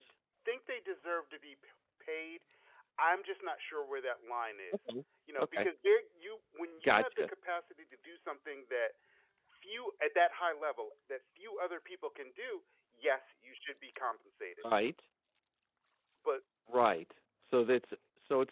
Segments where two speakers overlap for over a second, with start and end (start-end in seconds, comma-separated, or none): none